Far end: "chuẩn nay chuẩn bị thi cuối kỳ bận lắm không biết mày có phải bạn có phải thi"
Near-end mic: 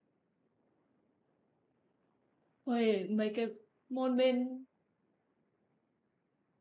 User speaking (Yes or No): Yes